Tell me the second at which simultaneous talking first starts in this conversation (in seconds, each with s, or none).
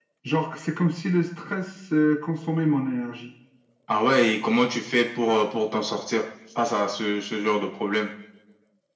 none